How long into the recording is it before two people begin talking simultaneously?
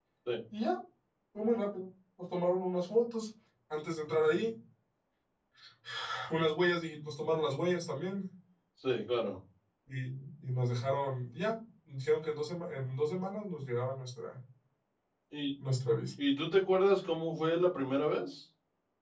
none

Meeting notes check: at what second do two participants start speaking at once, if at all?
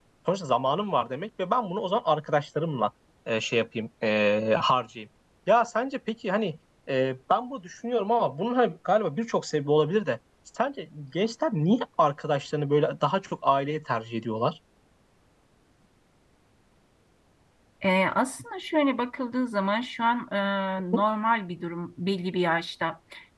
none

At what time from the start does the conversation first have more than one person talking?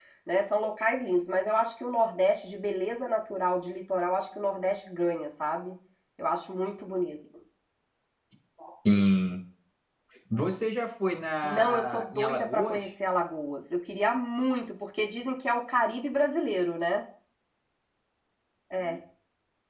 11.4 s

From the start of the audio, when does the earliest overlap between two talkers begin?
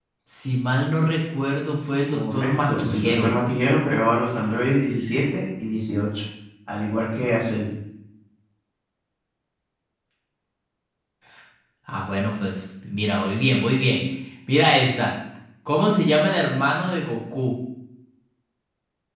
2.1 s

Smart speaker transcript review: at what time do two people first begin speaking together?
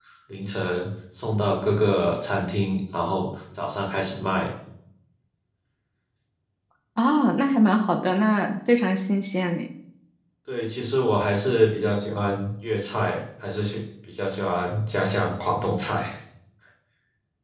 none

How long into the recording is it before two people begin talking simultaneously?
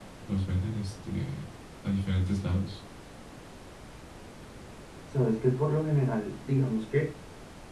none

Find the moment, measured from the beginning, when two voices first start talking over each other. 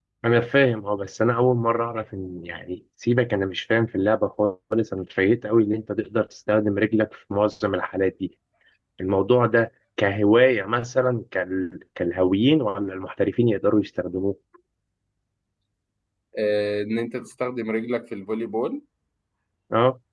none

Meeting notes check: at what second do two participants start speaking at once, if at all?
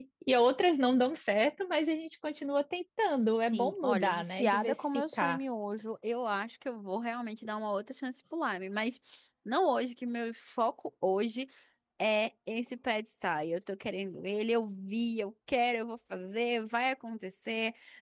3.4 s

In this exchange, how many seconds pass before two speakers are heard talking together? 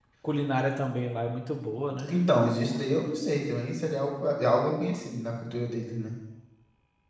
none

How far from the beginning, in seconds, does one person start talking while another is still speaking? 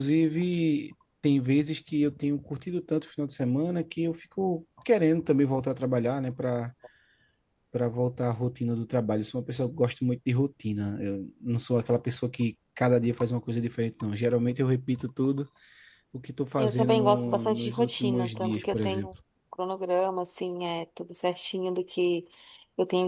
16.6 s

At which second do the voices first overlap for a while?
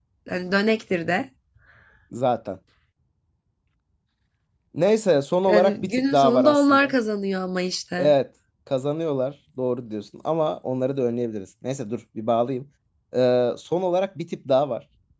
5.5 s

